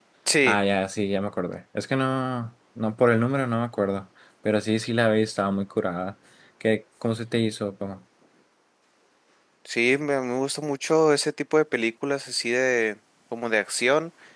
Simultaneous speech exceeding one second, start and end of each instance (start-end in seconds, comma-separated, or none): none